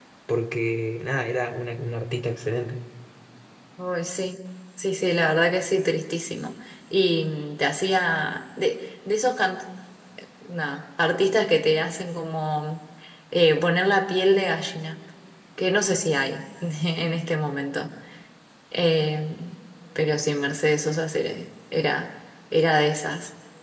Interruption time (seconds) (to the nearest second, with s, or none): none